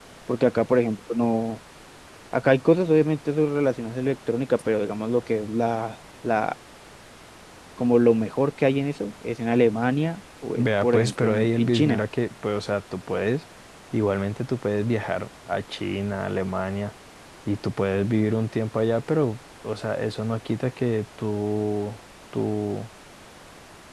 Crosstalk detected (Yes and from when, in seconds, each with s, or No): Yes, from 10.6 s